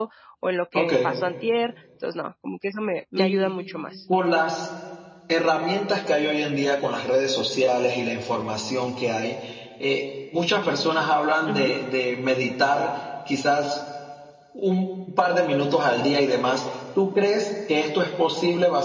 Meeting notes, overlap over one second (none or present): none